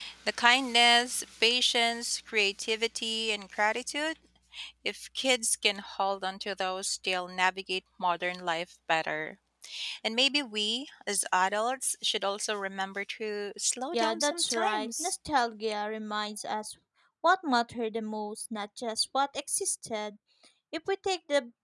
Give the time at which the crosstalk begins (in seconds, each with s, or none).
13.9 s